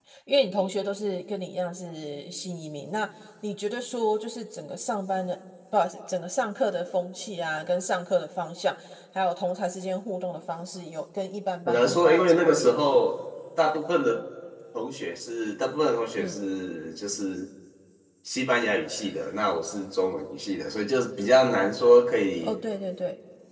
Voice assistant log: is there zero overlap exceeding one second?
No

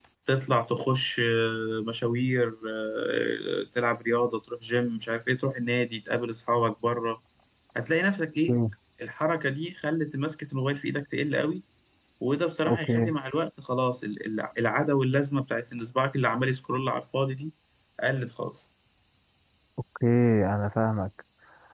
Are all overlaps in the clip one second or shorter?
Yes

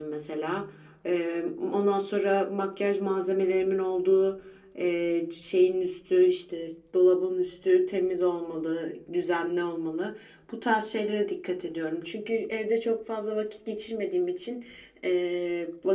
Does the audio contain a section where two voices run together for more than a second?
No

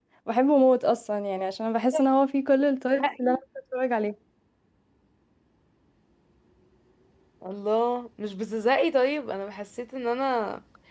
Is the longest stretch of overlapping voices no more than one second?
Yes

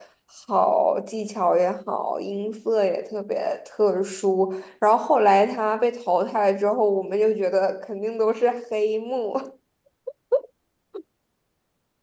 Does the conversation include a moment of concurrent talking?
No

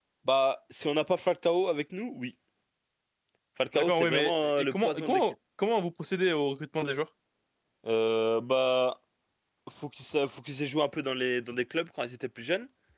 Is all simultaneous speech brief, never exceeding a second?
No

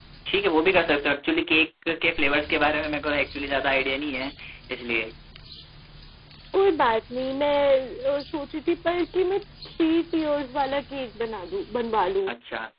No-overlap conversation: Yes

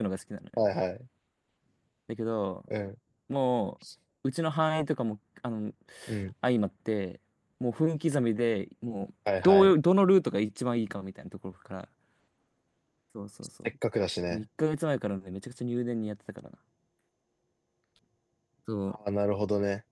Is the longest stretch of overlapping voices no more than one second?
Yes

